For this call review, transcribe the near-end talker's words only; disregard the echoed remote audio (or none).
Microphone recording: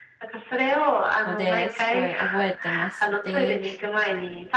ので、すごい、覚えてまして